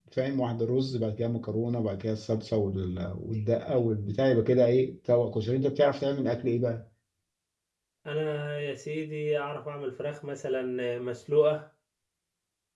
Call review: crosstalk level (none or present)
none